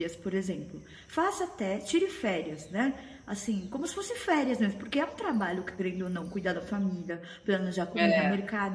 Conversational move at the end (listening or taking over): listening